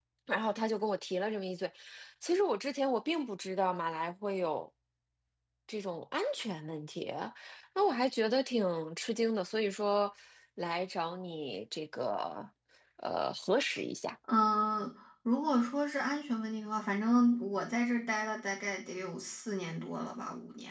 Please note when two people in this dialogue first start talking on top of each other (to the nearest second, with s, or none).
none